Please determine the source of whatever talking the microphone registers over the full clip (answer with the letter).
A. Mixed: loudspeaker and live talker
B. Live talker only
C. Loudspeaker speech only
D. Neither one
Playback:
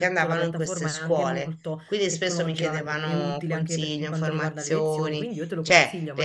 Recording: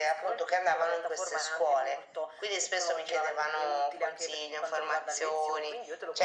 C